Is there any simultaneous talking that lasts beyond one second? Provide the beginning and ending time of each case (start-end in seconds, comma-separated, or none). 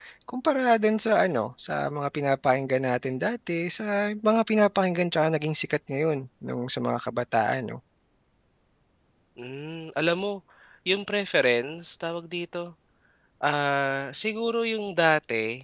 none